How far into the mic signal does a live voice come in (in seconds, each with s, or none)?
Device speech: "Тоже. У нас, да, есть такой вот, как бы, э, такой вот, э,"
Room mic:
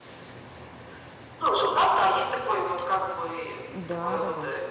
3.7 s